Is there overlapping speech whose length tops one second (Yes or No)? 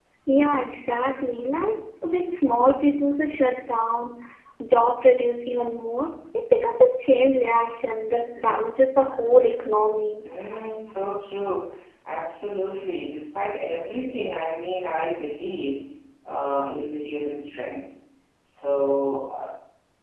No